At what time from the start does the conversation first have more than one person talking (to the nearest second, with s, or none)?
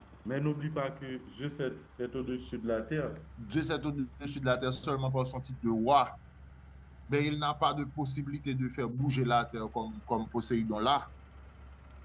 none